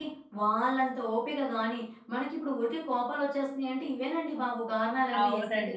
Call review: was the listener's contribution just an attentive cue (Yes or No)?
No